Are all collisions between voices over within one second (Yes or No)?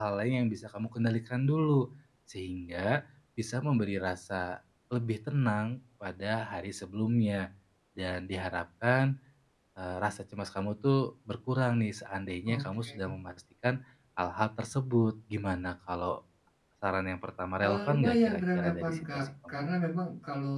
No